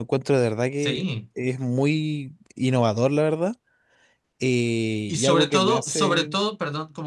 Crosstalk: present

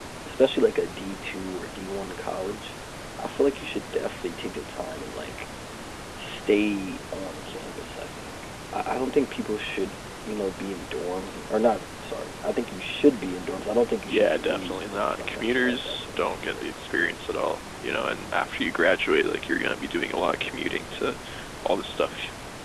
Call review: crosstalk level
present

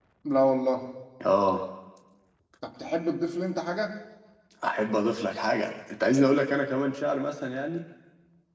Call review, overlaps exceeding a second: none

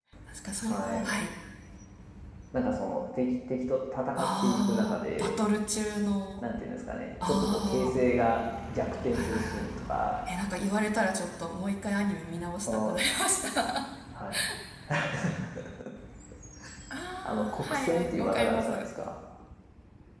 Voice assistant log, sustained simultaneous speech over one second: present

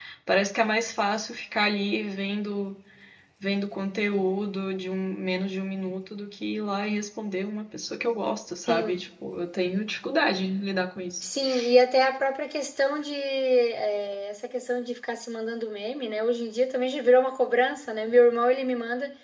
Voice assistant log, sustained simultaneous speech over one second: none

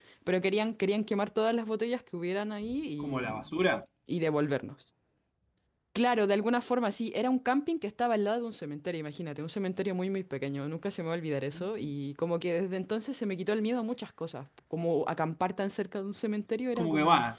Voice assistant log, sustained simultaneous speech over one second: none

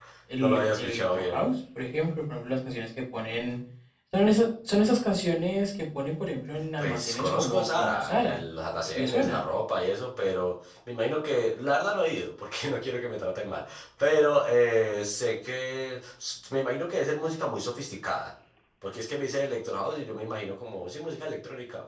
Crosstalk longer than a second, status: present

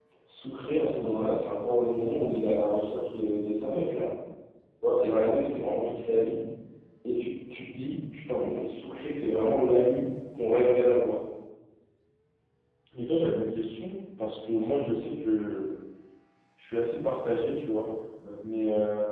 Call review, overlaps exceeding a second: none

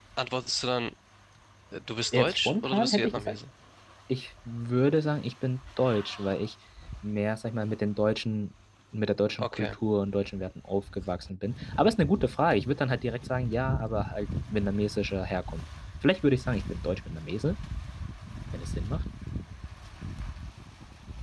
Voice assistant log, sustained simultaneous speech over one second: present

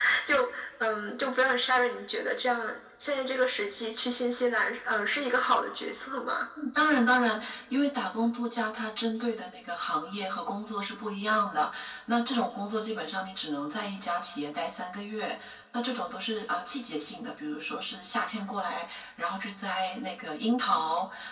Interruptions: none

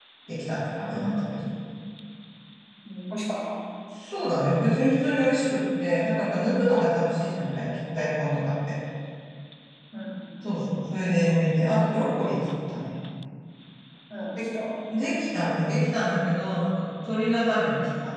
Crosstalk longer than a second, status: none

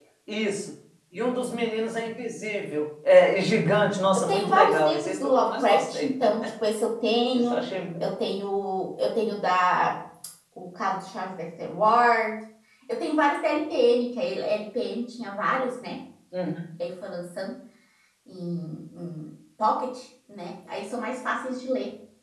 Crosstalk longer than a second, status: present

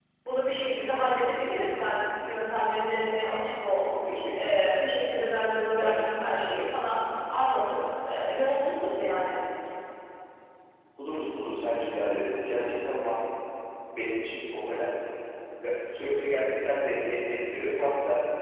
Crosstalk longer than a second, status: none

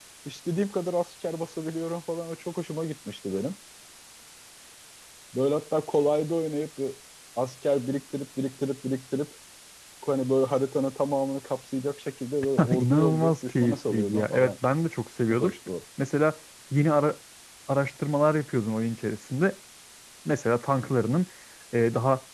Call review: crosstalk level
present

